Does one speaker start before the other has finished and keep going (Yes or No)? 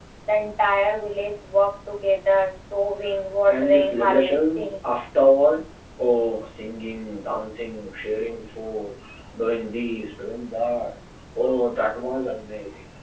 Yes